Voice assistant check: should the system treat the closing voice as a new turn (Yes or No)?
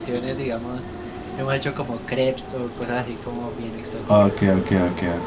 Yes